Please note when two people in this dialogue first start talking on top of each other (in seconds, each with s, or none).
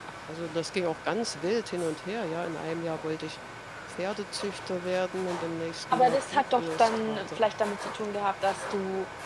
5.9 s